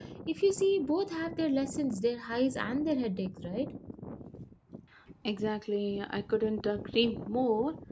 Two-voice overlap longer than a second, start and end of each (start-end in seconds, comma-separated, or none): none